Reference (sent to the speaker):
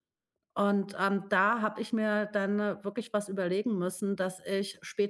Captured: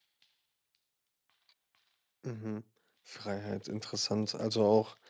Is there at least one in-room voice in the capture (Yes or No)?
Yes